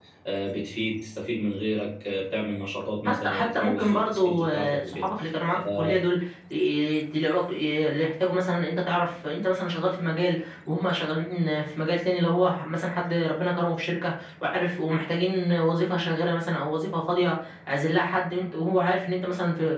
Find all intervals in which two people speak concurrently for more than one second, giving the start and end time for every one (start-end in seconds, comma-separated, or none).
3.0-5.1